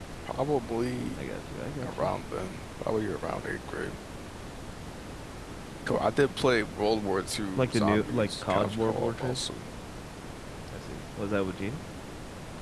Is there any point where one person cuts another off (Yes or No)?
Yes